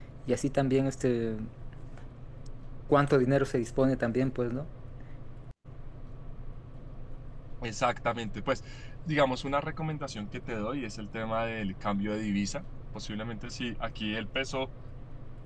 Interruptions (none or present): none